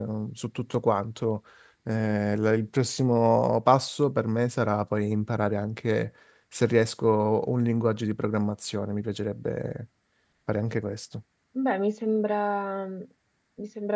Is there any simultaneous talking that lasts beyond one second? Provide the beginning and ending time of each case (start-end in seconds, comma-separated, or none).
none